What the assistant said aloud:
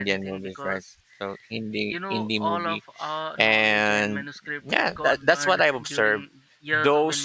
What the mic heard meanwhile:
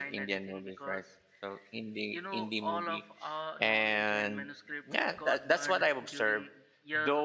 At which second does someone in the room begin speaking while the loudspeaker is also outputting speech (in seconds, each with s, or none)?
none